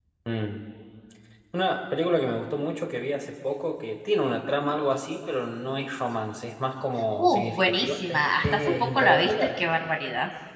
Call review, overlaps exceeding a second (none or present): present